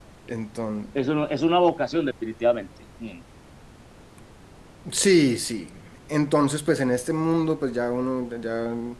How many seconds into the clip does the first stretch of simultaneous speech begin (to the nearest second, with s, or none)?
none